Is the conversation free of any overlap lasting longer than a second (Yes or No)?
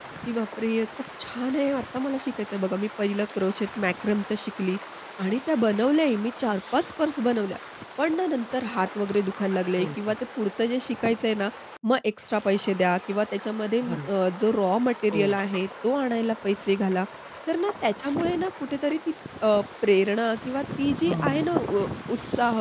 Yes